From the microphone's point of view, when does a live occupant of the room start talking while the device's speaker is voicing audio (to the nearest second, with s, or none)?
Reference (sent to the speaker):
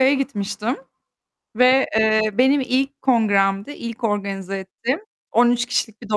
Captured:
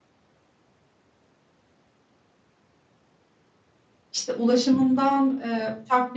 4 s